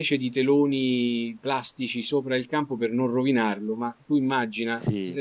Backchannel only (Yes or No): Yes